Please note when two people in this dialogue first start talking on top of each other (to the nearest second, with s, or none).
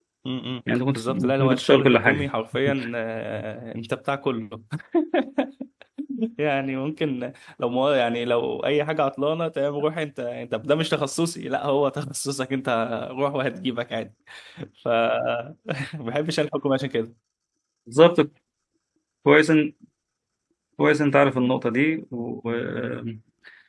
1 s